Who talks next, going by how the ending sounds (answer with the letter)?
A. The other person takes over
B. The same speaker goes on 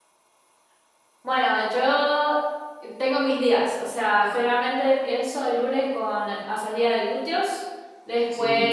B